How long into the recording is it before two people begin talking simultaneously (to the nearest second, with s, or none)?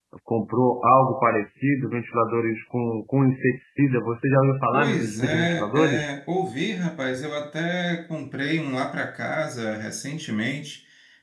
5 s